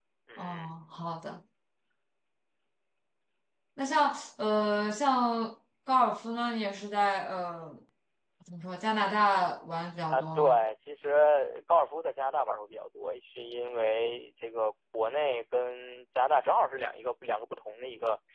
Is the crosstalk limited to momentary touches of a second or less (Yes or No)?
Yes